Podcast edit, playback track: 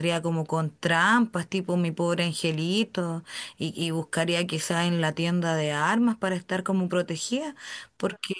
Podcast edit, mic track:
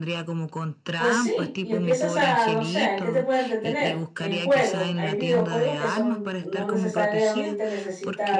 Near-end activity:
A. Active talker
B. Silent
A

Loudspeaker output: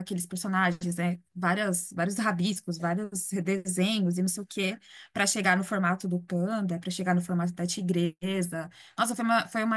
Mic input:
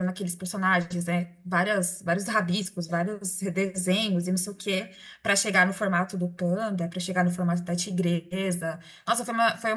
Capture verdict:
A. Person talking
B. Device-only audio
B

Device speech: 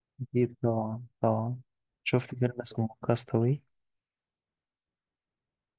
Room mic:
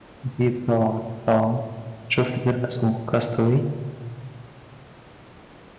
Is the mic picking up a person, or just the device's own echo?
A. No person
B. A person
A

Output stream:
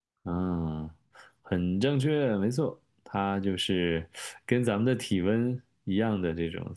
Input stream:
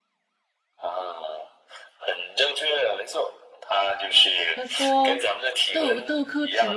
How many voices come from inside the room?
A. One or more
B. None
A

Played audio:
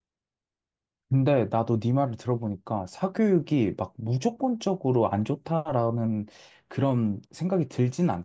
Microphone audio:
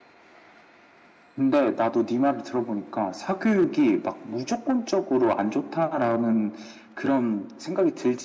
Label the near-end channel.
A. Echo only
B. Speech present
A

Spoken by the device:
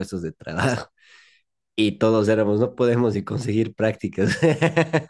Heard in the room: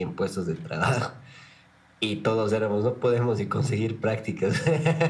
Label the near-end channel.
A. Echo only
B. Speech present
A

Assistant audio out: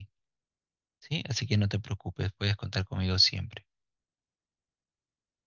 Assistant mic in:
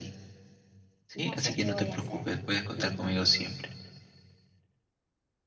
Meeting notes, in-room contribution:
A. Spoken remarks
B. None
A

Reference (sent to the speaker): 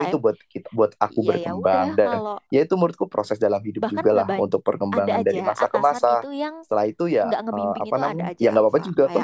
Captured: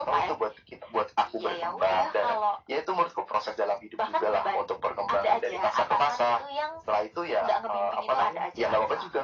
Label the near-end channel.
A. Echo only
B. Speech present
A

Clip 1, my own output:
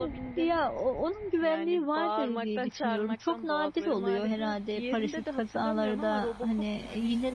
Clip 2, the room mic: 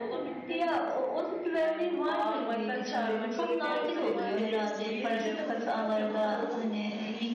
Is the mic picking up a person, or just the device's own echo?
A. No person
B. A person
B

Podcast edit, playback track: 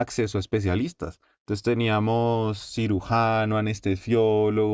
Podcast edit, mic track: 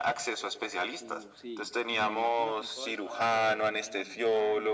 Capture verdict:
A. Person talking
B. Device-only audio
A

